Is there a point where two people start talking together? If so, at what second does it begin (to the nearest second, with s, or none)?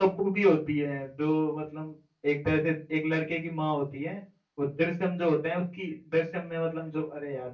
none